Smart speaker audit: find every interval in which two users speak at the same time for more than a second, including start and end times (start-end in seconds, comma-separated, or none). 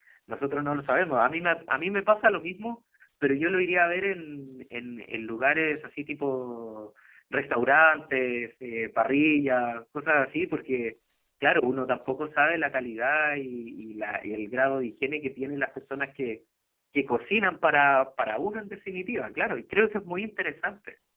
none